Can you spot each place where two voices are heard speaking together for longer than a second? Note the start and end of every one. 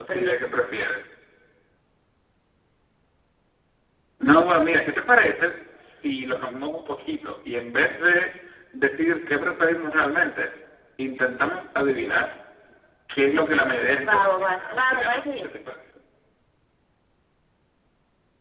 14.1-15.5

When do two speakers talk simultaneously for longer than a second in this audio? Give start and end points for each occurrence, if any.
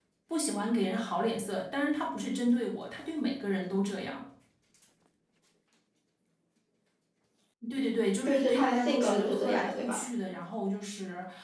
8.3-10.1

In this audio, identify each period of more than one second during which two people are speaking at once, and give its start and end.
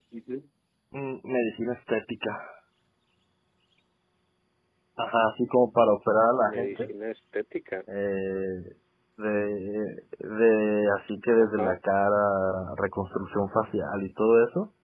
none

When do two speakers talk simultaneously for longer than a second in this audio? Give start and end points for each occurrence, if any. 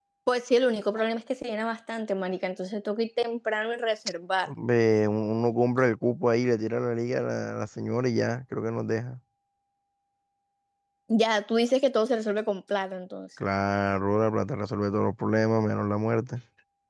none

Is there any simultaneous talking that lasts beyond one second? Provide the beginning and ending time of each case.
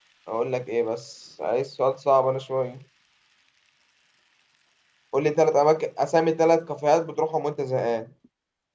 none

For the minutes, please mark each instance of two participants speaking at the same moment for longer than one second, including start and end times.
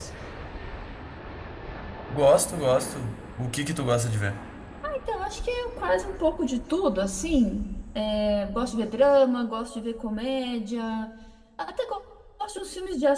none

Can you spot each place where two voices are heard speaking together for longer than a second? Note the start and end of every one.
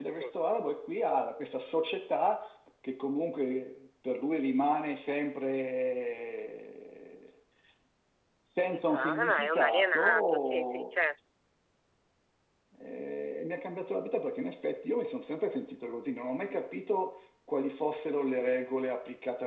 8.6-10.9

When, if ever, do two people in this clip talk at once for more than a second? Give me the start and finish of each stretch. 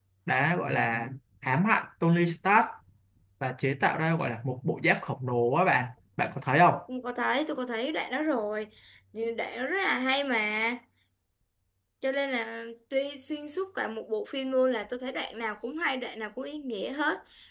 none

